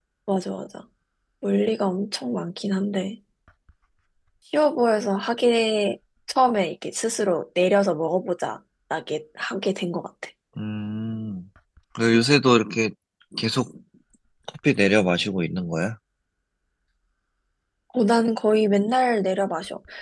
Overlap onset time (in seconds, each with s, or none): none